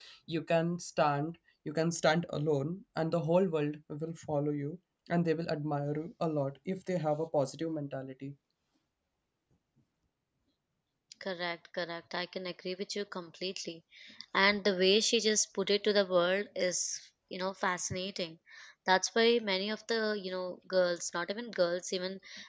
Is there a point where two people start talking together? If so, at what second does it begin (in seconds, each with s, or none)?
none